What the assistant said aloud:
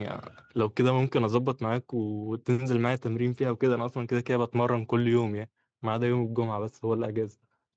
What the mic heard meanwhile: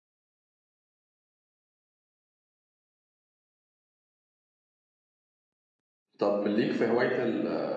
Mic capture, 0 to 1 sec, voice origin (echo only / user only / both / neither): neither